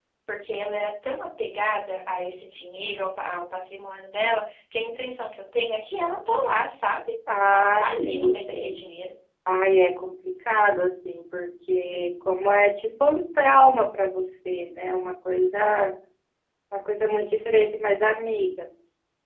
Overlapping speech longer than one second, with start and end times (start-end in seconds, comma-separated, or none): 7.5-8.7